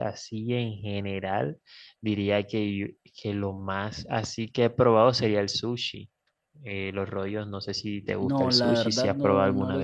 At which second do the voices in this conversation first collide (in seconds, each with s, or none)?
8.2 s